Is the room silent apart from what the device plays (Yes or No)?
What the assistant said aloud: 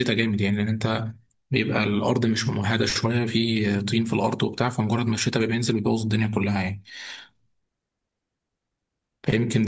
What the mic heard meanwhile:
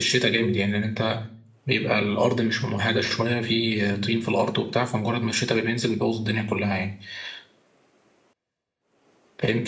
No